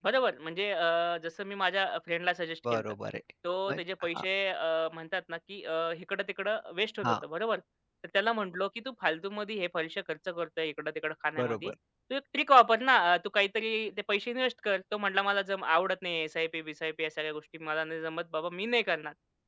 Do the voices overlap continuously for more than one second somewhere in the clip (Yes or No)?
No